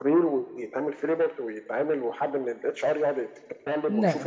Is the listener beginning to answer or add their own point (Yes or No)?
Yes